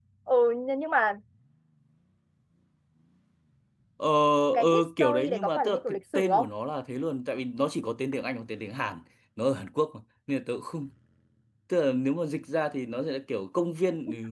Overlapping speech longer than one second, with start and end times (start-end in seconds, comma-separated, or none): 4.6-6.5